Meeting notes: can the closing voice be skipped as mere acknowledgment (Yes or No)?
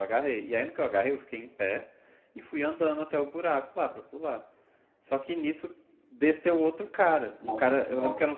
Yes